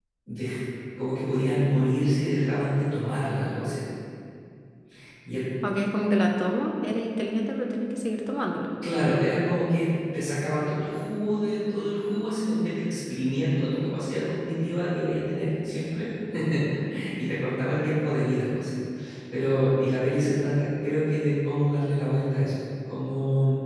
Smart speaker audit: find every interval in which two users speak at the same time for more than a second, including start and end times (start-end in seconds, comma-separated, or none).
none